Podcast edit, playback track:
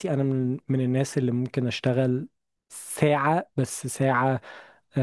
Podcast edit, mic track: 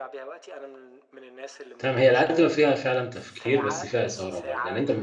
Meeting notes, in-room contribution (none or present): present